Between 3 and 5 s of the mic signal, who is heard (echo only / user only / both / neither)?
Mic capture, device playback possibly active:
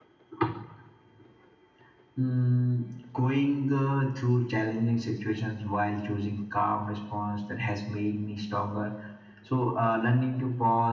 echo only